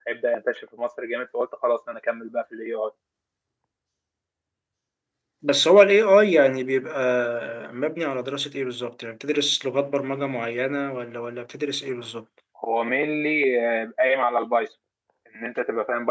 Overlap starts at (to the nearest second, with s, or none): none